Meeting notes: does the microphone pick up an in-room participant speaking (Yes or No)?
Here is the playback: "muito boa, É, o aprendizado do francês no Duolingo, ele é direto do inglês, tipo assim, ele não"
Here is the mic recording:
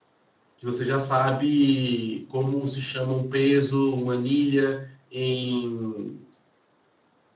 Yes